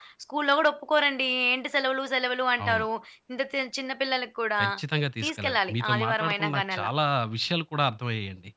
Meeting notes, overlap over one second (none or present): present